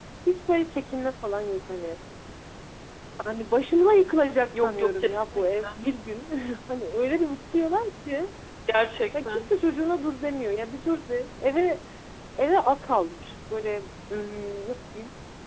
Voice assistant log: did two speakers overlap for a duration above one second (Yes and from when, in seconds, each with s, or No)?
Yes, from 4.5 s